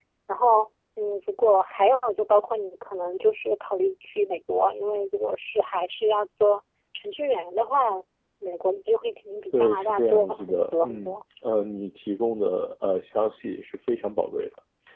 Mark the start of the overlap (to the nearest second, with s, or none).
10 s